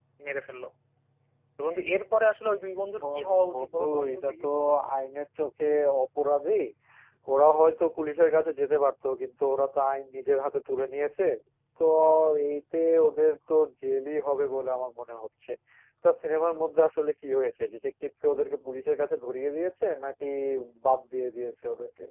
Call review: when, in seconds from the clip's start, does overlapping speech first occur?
3.0 s

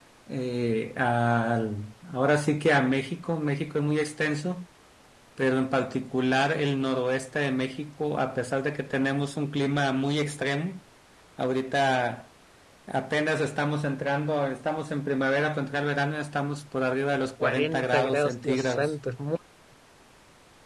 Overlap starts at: 17.4 s

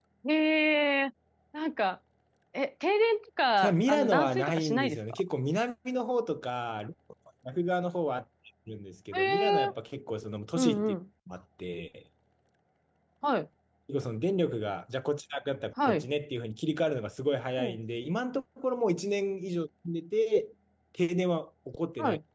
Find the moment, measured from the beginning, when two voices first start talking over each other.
3.6 s

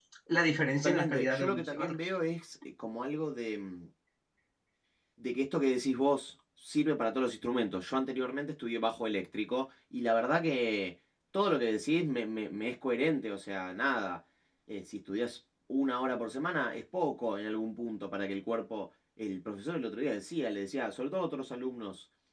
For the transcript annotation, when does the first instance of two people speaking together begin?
0.8 s

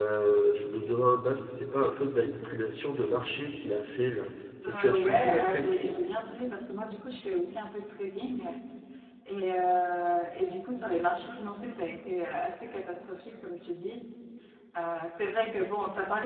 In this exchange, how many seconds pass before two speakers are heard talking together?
4.6 s

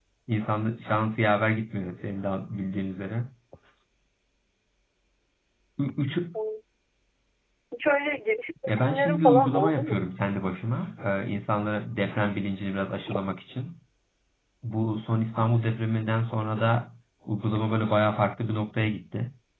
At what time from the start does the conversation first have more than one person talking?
8.7 s

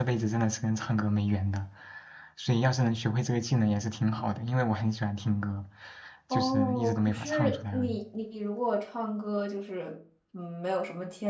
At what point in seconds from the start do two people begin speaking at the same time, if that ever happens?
6.3 s

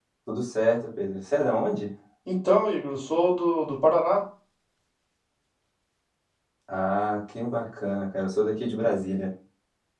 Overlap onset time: none

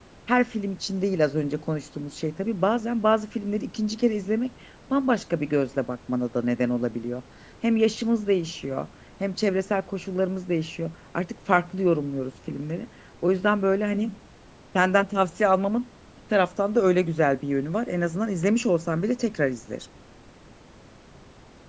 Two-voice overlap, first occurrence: none

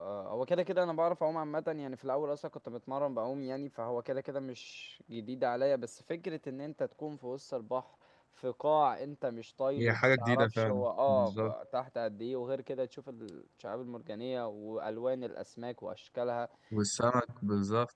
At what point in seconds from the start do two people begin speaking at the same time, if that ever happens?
9.8 s

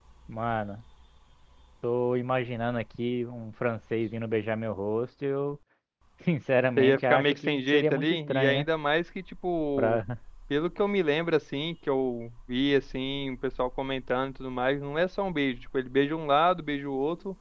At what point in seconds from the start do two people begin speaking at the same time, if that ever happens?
6.8 s

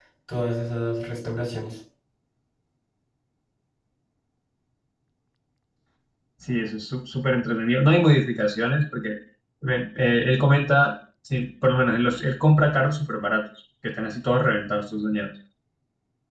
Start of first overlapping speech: none

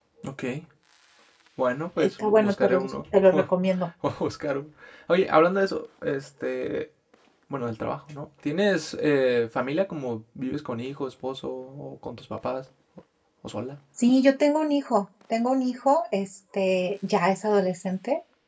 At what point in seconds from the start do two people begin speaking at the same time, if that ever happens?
2.0 s

